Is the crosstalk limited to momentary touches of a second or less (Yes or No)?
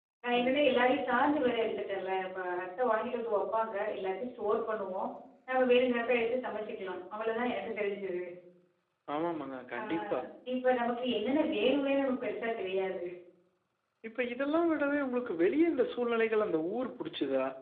Yes